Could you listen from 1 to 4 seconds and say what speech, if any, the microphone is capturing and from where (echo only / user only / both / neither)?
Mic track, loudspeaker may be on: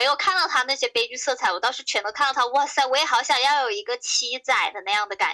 echo only